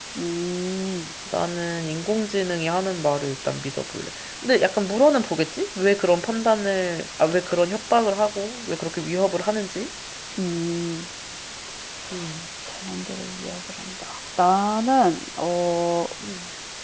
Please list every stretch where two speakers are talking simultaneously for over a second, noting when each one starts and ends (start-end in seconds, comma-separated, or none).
none